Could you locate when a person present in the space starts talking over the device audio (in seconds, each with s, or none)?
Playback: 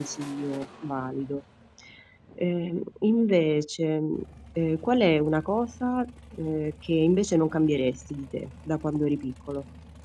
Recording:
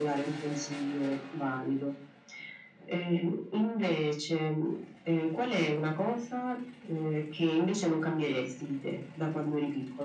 none